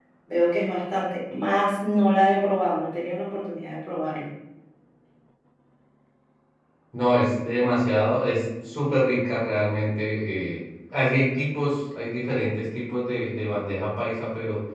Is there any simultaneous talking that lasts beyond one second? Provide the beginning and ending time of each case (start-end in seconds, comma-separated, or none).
none